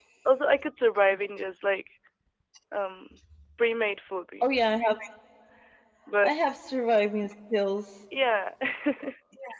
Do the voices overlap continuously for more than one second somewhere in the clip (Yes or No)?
No